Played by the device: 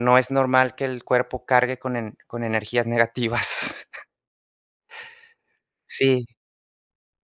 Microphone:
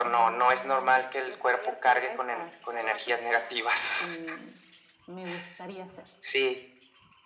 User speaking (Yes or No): Yes